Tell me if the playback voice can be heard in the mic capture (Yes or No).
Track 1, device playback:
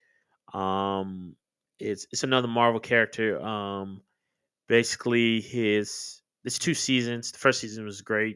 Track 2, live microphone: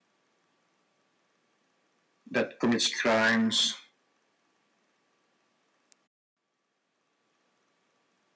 No